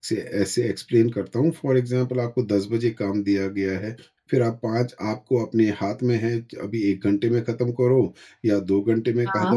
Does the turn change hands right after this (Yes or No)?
No